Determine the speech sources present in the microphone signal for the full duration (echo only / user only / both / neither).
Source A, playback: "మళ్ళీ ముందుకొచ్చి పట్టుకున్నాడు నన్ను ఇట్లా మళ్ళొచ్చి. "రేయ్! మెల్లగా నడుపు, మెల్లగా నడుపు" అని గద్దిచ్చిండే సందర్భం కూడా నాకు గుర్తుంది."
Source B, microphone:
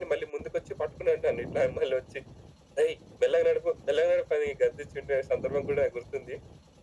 echo only